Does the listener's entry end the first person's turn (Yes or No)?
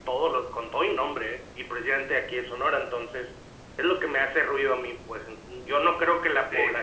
No